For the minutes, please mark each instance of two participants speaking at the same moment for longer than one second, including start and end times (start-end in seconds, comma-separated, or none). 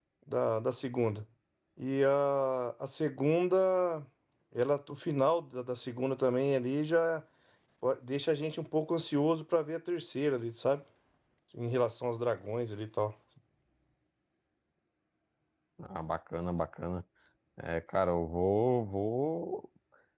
none